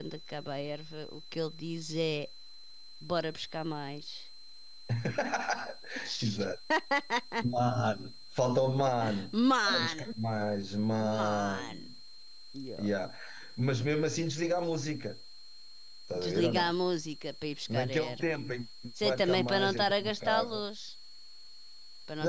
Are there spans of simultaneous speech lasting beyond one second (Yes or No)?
Yes